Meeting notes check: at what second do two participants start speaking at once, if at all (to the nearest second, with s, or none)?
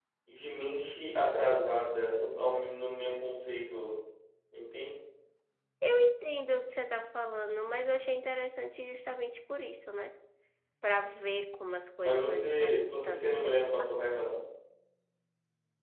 12 s